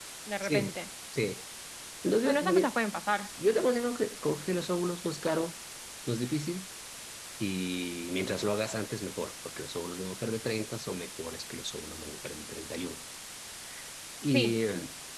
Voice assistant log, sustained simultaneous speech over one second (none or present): none